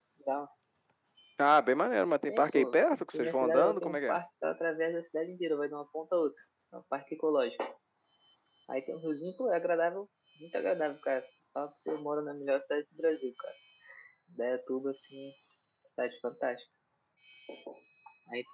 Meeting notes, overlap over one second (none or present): present